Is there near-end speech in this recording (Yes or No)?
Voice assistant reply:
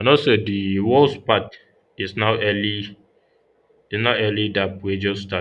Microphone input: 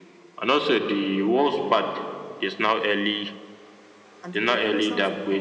Yes